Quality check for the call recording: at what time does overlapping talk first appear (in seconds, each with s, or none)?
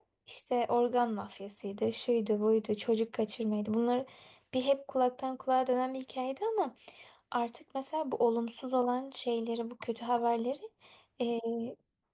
none